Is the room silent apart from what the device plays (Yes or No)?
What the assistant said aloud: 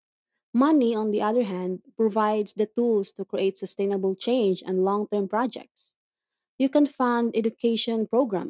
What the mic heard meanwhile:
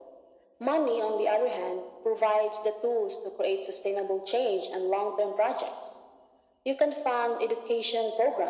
Yes